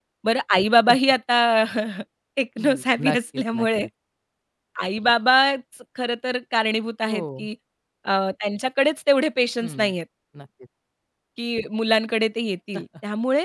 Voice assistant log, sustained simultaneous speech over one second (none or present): present